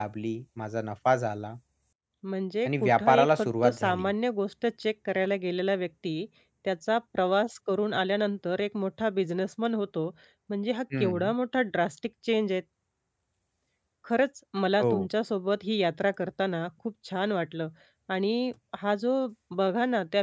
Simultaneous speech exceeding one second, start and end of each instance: 2.6-4.1

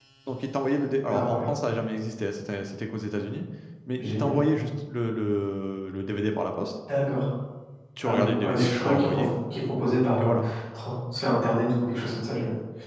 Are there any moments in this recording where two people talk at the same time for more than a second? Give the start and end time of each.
8.0-9.3

